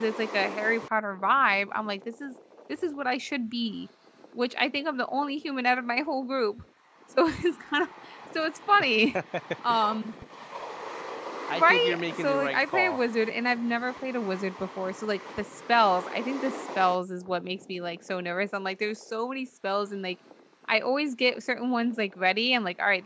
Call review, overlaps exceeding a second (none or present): present